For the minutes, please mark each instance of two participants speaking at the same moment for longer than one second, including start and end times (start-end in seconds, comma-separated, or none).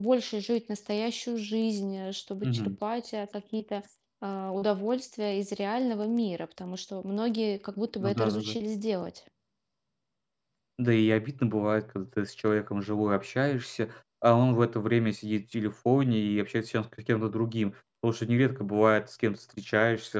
none